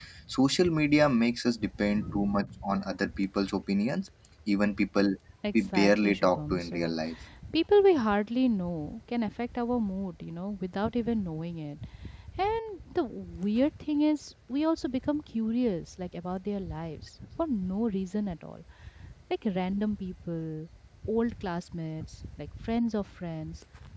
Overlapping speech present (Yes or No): Yes